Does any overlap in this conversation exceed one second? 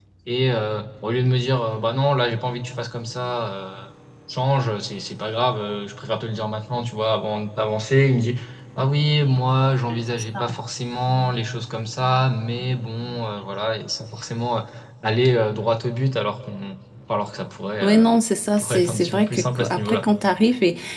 Yes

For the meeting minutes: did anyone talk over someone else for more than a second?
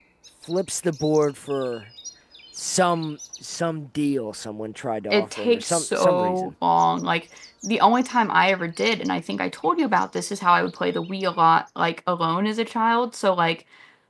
Yes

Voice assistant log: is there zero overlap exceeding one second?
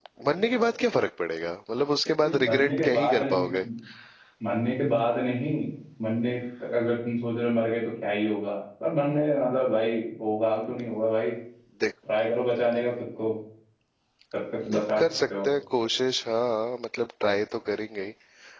No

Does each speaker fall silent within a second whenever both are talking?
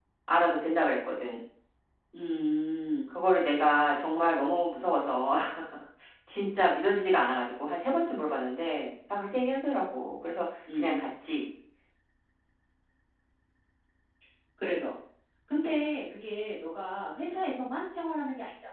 Yes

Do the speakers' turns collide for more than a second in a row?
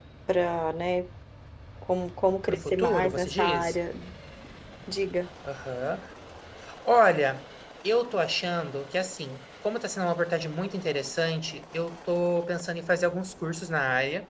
Yes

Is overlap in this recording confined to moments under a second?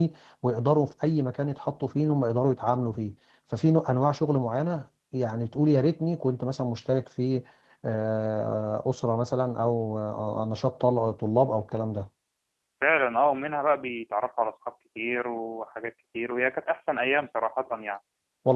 Yes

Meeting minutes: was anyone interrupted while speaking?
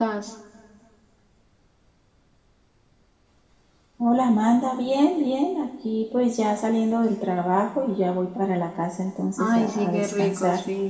Yes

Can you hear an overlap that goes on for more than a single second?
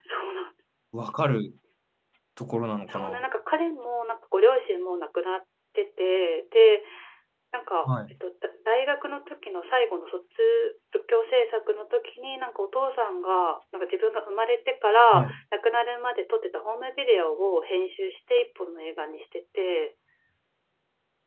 No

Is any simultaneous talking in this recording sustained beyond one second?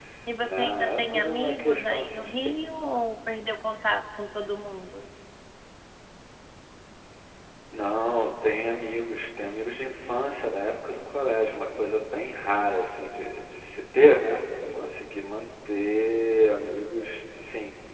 Yes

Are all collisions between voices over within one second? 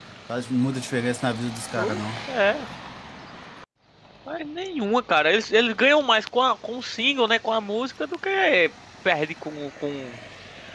Yes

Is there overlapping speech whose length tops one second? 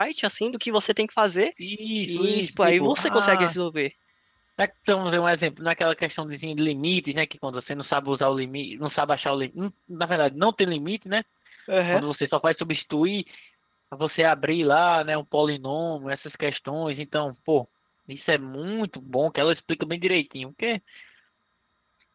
Yes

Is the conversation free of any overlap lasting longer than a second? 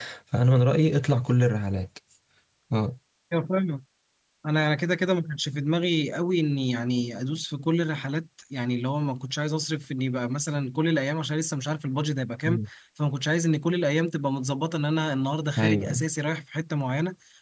Yes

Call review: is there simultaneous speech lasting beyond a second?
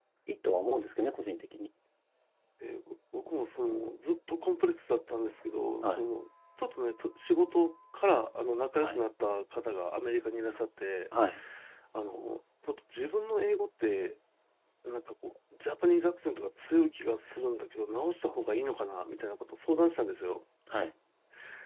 No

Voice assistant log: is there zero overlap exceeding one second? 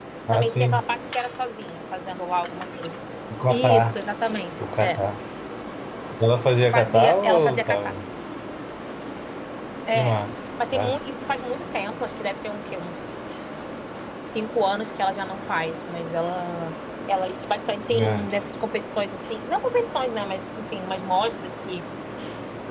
No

